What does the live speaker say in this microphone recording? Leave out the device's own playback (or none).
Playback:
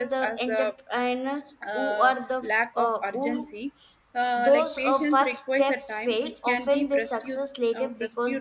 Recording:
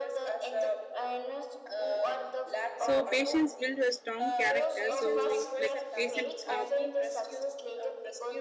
so patience build a strong character so like patient uh,